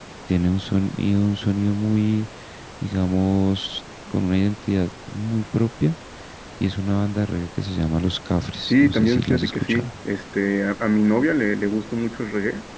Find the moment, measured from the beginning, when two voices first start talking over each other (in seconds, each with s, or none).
8.7 s